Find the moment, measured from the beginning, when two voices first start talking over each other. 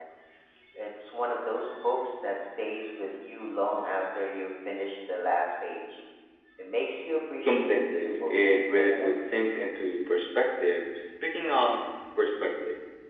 7.5 s

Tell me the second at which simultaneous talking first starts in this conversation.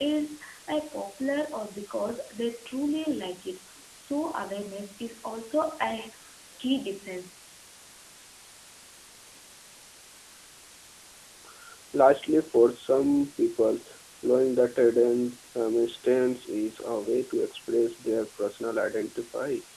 none

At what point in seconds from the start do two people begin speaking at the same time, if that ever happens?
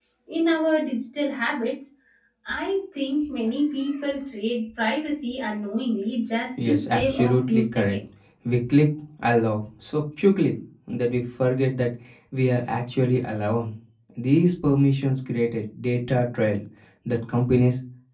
6.6 s

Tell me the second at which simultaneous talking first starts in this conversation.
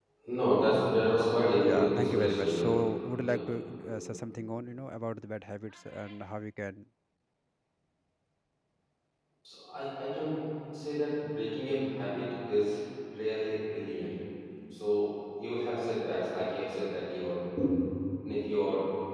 1.6 s

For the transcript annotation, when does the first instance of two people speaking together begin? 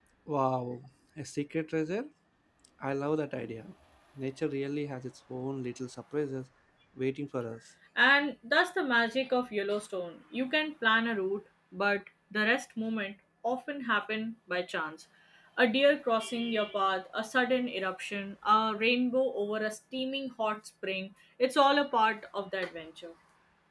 none

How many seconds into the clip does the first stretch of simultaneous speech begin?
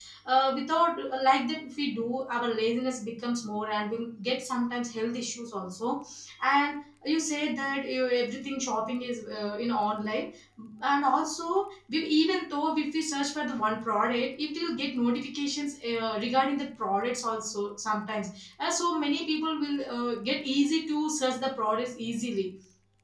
none

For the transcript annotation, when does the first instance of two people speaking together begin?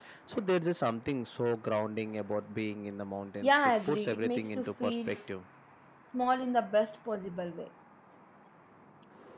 3.4 s

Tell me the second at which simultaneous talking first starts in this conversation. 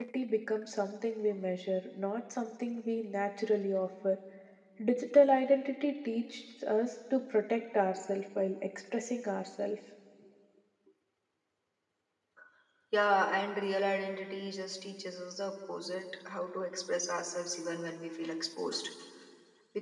none

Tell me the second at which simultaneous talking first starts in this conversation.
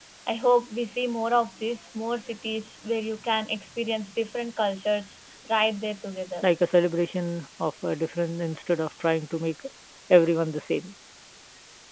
none

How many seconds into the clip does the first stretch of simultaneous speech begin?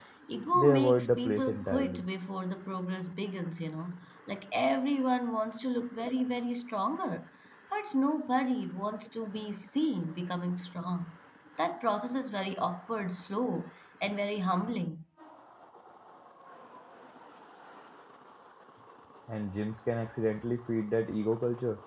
0.5 s

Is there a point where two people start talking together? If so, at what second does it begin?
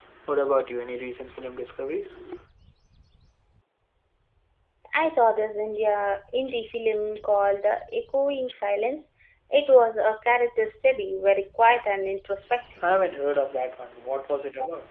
none

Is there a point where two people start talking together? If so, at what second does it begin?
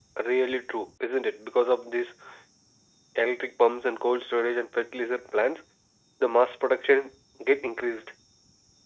none

